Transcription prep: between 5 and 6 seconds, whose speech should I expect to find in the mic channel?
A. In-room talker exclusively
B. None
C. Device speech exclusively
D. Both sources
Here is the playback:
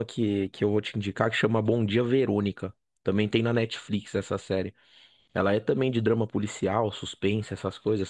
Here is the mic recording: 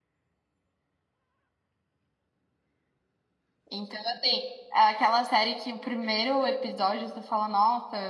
A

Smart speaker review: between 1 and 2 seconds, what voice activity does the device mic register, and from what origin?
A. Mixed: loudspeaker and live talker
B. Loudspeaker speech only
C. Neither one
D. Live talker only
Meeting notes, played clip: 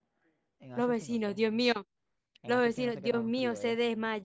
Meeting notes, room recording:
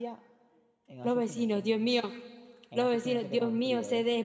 B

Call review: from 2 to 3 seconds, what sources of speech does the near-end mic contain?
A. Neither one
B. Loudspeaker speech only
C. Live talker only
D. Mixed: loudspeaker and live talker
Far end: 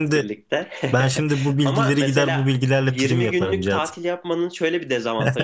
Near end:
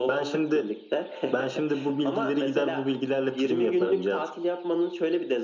B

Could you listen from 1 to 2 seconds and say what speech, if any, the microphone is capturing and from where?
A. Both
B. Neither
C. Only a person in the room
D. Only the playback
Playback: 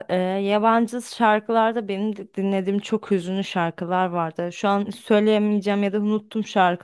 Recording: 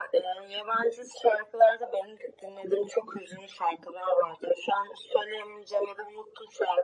D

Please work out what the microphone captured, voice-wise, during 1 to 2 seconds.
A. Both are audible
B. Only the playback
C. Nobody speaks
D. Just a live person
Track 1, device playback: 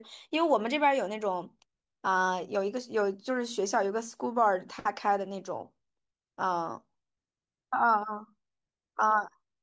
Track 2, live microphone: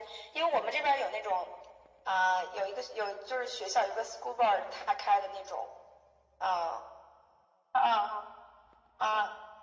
B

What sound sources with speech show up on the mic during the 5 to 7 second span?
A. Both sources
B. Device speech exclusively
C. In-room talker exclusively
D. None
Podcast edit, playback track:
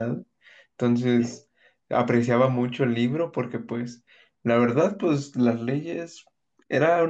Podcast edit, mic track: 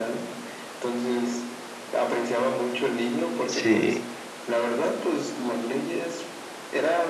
B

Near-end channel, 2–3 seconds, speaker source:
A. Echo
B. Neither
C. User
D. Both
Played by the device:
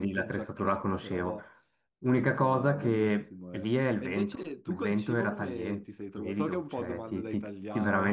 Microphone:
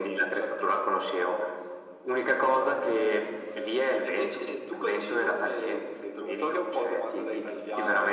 A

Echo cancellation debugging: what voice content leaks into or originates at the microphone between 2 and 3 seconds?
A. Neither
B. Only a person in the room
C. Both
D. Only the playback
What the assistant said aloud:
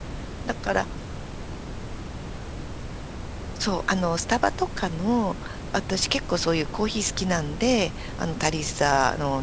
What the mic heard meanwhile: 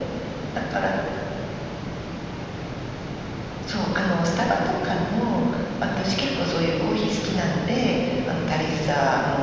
A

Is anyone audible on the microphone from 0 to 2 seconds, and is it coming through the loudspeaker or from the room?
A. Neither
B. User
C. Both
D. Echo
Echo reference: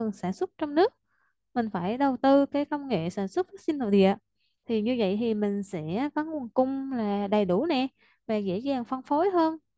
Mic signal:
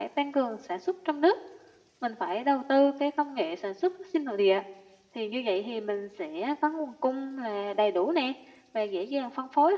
D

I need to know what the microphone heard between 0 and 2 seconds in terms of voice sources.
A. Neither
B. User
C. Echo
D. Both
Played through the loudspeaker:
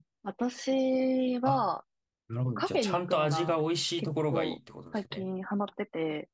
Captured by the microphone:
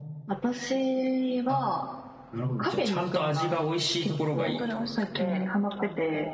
C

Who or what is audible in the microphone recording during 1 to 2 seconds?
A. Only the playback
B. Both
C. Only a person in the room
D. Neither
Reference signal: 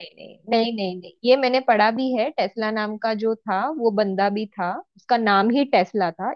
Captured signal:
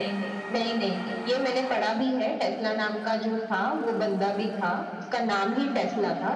A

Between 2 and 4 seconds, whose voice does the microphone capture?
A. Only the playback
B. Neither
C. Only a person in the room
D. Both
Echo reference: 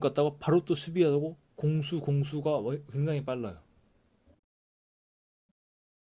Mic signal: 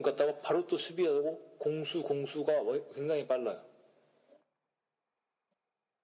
A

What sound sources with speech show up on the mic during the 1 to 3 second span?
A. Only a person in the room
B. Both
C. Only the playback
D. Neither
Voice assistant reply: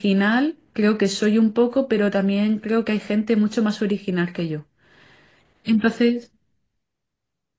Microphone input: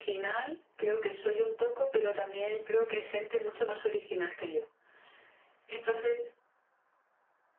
C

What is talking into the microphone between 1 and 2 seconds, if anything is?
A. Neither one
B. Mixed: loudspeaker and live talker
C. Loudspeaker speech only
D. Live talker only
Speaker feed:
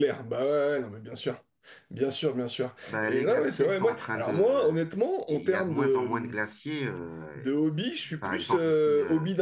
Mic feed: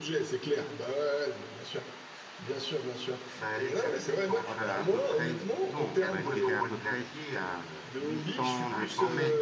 C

